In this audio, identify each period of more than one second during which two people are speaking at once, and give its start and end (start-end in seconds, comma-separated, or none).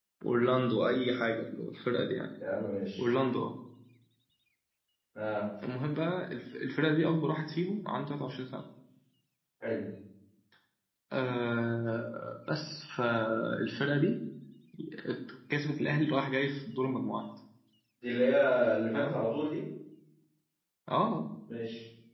none